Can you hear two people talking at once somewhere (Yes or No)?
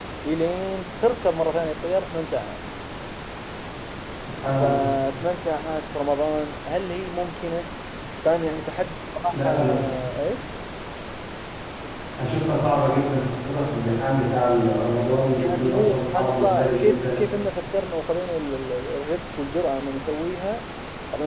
Yes